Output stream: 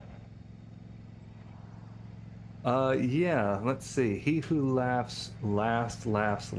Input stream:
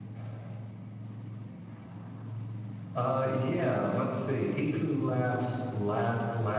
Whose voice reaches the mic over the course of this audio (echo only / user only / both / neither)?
echo only